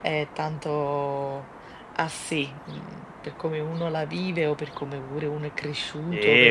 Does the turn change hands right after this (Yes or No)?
Yes